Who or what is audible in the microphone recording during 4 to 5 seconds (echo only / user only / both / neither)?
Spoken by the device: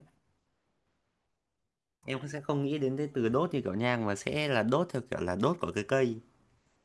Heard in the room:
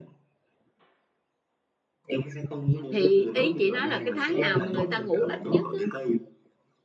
both